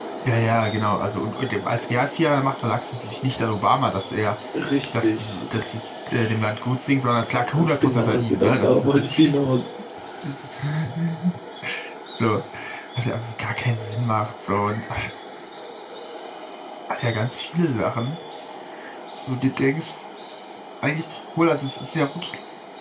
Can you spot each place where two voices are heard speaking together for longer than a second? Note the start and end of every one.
7.5-9.1

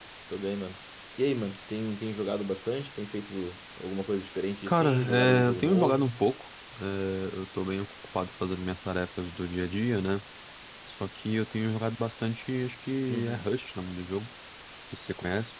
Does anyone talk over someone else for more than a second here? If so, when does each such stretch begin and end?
4.7-6.1

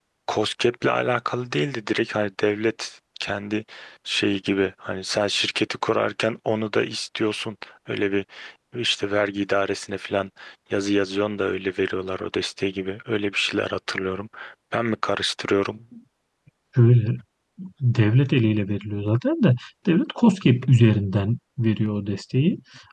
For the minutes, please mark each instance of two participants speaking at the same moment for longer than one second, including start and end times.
none

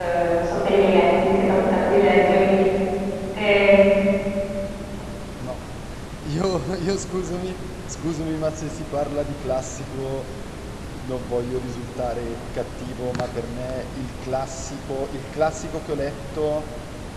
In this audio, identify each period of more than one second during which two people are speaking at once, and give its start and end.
none

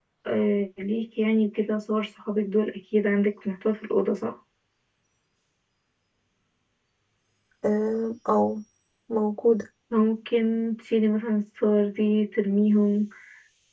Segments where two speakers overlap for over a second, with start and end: none

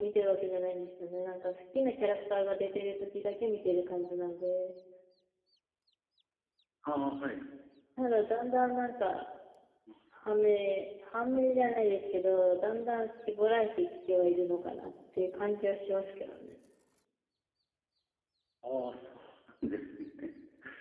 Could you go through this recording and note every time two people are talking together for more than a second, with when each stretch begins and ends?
none

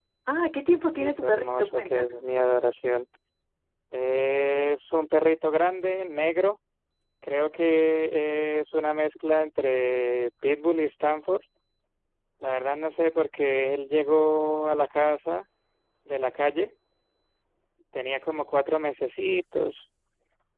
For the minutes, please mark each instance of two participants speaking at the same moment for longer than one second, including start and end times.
0.9-2.2

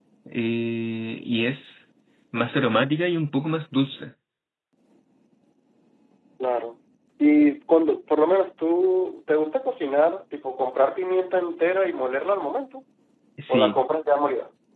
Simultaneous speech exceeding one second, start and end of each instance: none

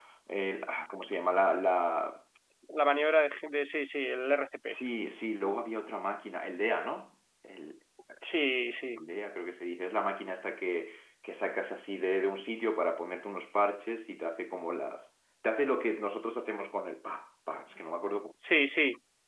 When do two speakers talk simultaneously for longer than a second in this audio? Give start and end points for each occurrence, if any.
none

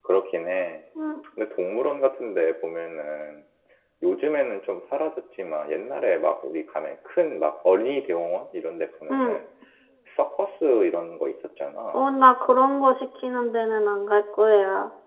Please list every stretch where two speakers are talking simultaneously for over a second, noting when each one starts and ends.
none

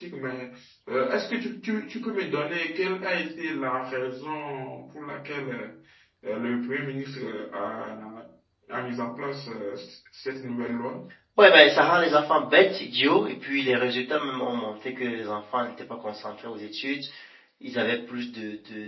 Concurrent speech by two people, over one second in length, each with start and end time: none

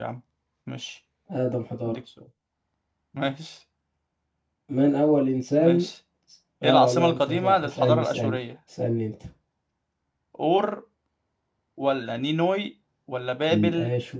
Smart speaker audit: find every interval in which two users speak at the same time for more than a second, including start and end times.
6.6-8.4

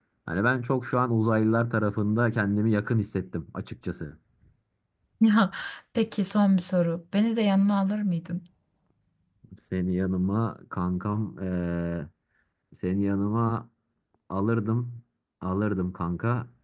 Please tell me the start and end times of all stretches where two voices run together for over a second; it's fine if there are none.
none

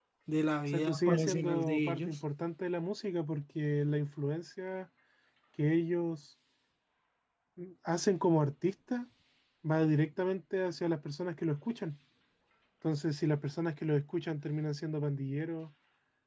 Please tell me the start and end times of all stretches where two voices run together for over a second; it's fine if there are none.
0.7-2.2

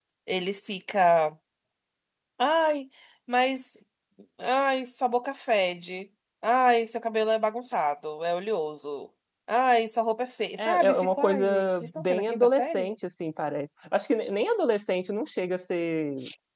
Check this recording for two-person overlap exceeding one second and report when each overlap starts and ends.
10.6-12.9

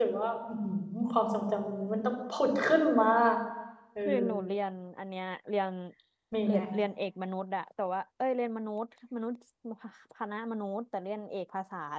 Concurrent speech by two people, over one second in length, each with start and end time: none

